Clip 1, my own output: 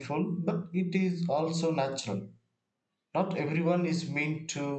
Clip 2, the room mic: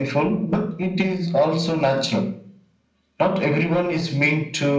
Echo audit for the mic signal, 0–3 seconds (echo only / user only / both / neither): echo only